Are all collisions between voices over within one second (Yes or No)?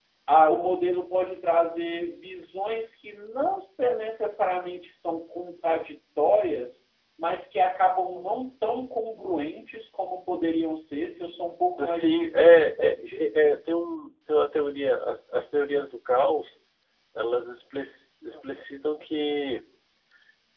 No